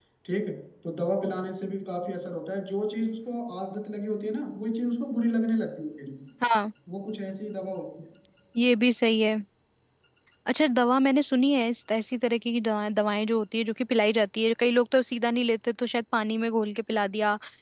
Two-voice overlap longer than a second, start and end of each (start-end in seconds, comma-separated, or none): none